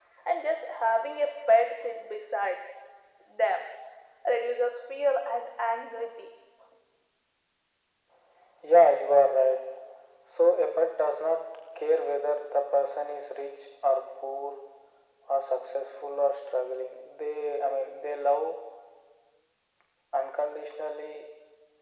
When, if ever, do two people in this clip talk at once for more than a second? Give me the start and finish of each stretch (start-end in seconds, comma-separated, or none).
none